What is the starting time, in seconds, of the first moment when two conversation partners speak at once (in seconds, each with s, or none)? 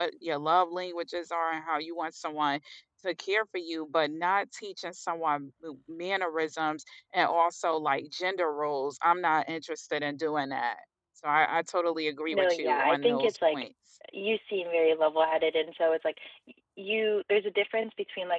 12.3 s